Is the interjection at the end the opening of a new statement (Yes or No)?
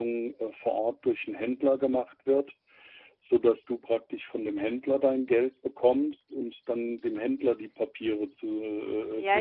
Yes